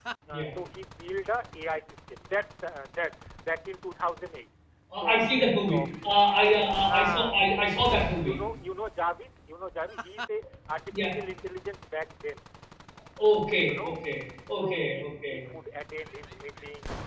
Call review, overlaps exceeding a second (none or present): present